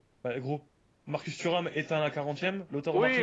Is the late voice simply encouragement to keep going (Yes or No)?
No